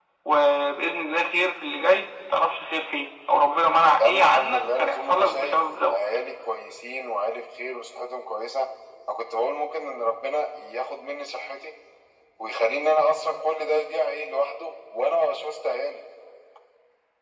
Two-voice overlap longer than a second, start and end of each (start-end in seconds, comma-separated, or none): 4.0-6.0